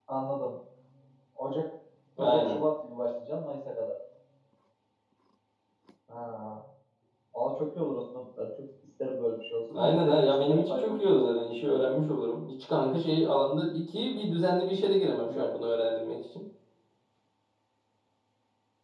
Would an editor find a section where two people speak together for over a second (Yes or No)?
Yes